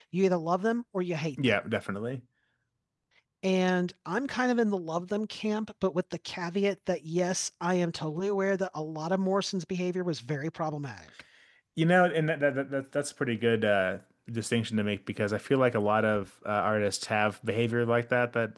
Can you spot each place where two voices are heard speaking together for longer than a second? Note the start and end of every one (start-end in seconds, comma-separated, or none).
none